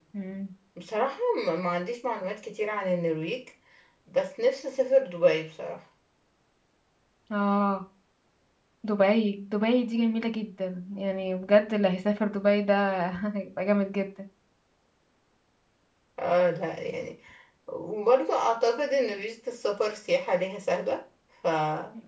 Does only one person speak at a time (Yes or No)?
Yes